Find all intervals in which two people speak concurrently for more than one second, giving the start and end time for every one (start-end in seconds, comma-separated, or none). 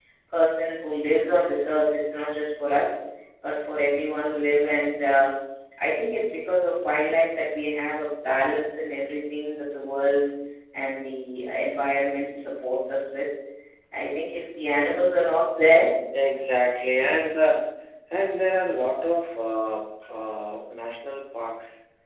none